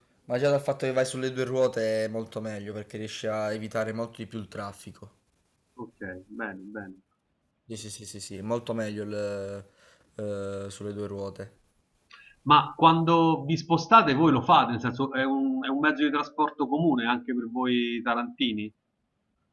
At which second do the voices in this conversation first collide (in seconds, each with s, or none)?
none